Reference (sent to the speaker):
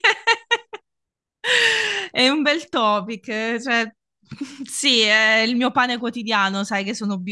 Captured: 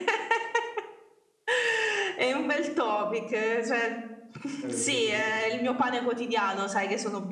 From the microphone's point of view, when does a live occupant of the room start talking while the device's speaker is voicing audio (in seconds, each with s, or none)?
4.6 s